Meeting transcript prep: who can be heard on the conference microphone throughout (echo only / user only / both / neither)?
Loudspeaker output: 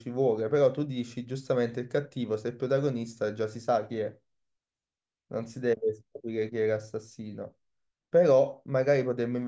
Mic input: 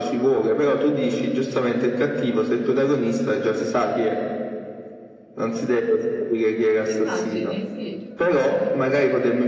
both